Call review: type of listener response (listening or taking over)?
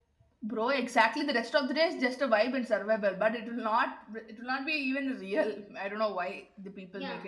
taking over